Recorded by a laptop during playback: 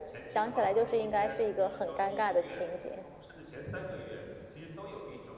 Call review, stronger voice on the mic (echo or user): echo